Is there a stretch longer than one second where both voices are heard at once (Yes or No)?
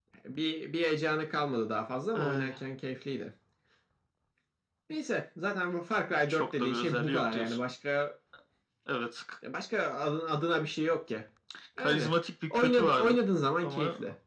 Yes